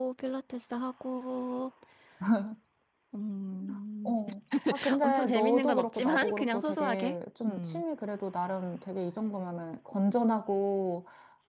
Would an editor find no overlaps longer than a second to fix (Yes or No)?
No